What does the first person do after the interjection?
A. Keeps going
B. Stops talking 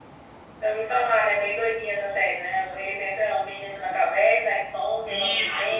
B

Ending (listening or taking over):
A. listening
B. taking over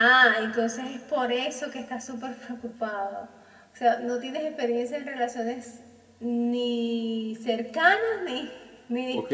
B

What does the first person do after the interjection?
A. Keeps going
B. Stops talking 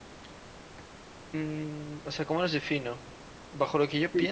B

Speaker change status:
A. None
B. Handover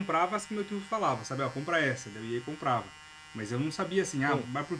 A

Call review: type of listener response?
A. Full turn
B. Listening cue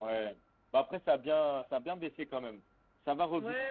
A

